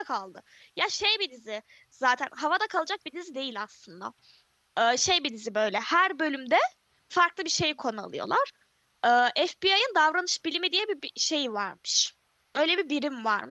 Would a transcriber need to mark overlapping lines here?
No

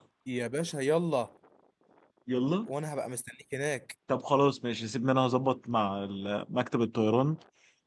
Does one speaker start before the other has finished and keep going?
No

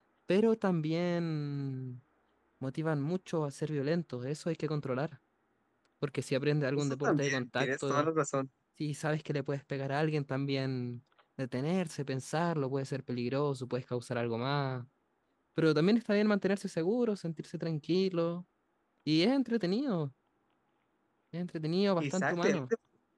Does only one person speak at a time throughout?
No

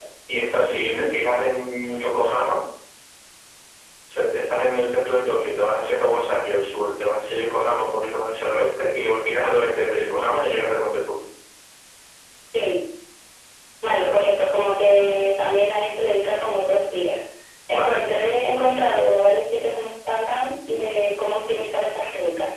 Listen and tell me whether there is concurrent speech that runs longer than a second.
No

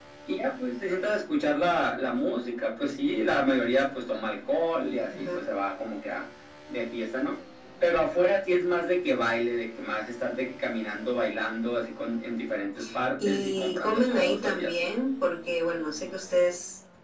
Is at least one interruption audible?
Yes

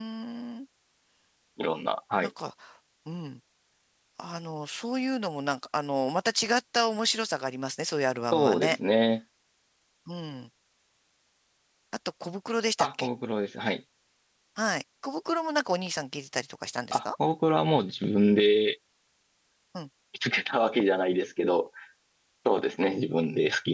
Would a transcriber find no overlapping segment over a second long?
Yes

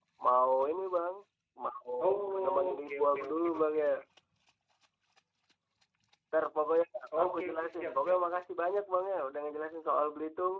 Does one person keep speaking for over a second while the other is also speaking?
Yes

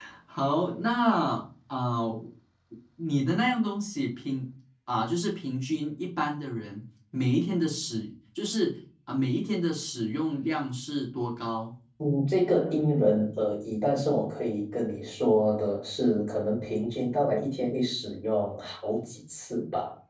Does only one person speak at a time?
Yes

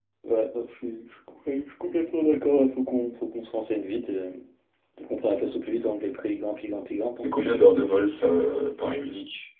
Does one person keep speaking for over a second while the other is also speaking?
No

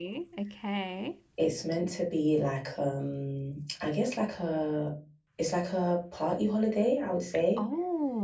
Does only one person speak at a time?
Yes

